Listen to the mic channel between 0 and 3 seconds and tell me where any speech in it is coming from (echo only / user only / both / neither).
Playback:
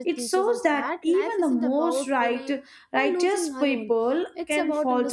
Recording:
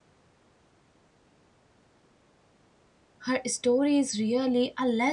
neither